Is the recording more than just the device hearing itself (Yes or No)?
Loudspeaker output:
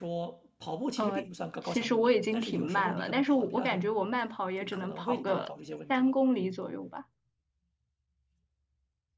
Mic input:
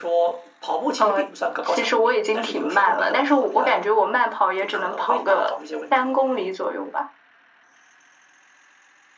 No